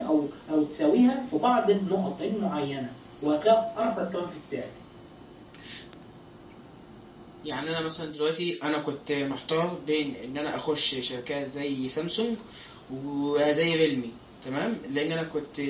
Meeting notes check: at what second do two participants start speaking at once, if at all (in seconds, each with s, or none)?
none